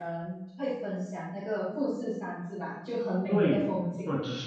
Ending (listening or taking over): taking over